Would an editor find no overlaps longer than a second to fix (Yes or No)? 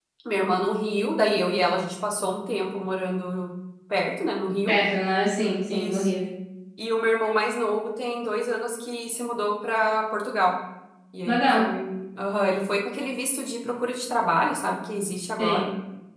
Yes